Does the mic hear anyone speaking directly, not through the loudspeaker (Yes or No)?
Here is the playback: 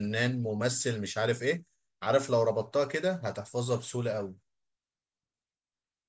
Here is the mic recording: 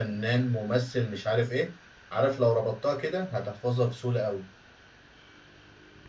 No